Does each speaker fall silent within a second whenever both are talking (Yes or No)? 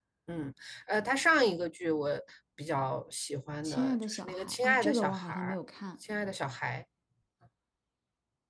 No